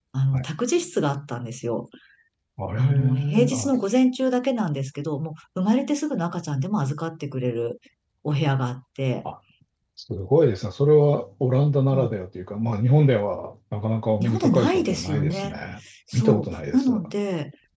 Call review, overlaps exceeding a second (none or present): present